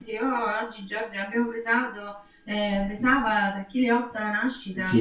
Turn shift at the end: Yes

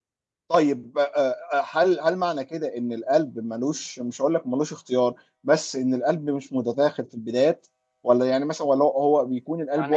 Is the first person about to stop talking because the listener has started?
No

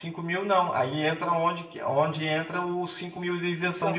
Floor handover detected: Yes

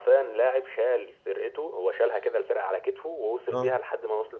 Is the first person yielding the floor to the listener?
No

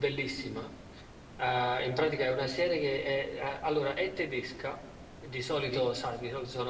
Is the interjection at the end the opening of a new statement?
No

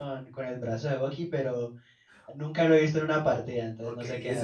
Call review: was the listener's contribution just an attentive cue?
No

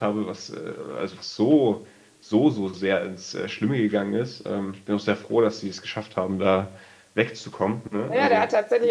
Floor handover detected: Yes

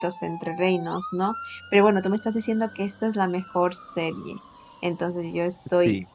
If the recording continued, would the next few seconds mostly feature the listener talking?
No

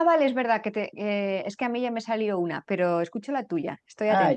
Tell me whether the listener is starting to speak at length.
Yes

